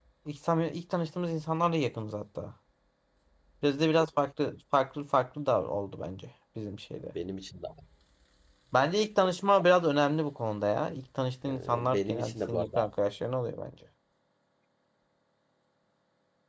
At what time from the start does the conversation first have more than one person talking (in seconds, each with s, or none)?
11.4 s